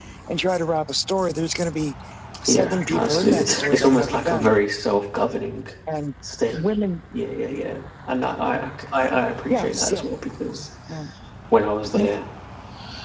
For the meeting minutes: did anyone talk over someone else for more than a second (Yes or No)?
Yes